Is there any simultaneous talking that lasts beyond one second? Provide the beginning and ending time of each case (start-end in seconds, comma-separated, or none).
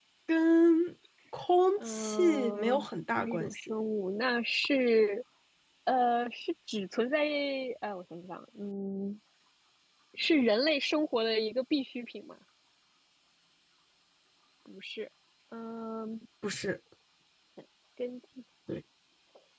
1.9-3.5